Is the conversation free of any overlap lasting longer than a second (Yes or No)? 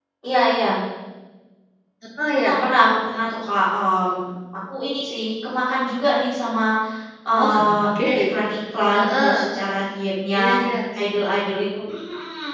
Yes